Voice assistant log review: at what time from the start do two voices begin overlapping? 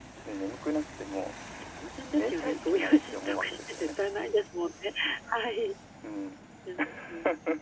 2.2 s

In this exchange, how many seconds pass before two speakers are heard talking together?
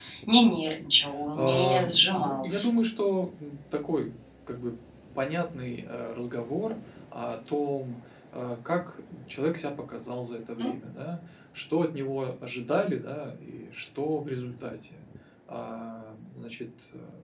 1.4 s

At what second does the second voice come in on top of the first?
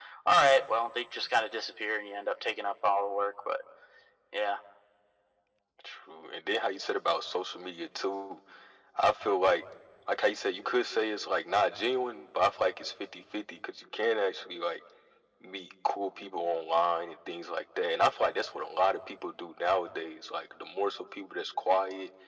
none

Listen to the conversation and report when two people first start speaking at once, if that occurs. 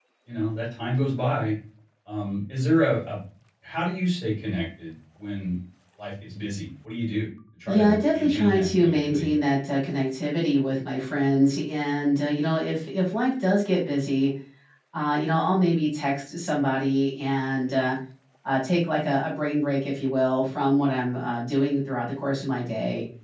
7.7 s

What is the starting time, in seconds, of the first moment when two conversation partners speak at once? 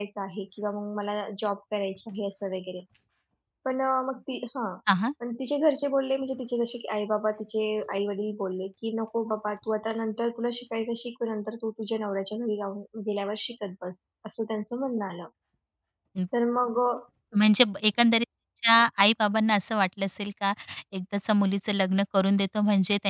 none

